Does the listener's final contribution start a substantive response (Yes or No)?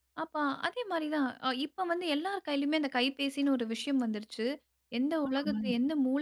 No